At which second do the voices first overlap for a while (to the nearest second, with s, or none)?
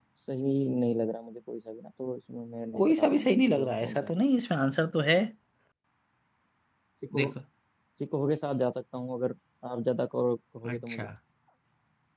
3 s